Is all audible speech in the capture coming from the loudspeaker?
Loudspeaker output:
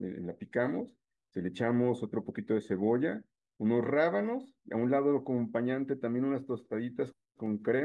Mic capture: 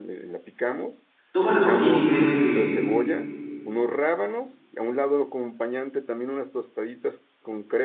No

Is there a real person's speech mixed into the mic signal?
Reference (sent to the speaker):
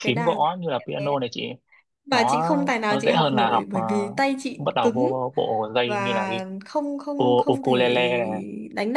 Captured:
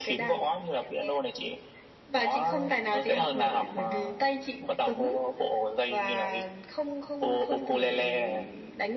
No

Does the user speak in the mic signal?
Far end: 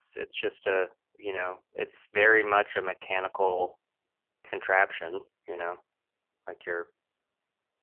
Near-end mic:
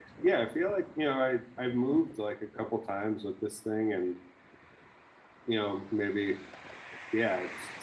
Yes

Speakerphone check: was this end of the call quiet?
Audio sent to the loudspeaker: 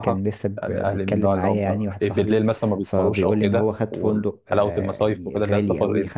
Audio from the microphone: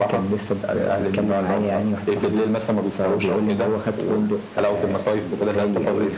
Yes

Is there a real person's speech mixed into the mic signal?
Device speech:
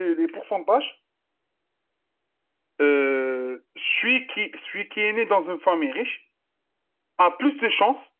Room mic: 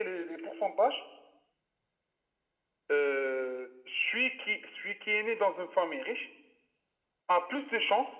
No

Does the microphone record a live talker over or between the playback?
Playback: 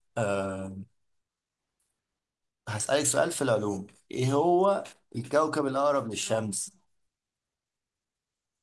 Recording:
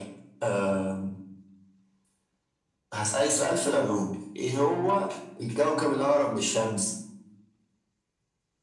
No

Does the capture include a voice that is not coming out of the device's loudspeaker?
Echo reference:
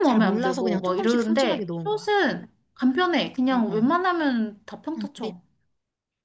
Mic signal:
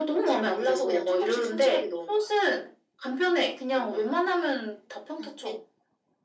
No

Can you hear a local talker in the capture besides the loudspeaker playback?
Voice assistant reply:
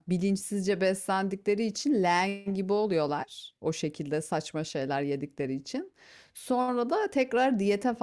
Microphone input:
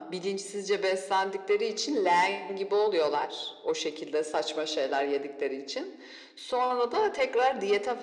No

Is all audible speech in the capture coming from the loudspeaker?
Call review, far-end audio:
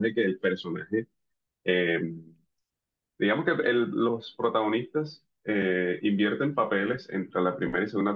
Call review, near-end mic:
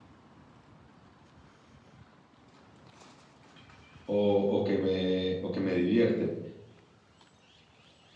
No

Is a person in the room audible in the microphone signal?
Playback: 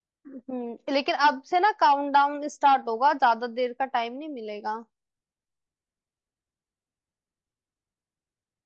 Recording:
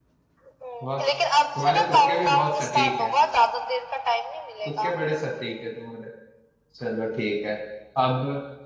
Yes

